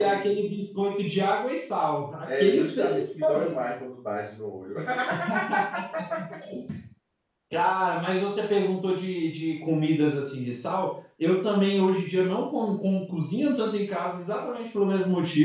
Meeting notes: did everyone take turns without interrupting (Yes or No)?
No